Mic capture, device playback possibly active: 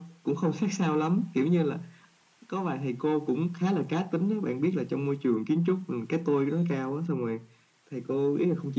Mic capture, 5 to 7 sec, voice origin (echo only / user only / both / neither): echo only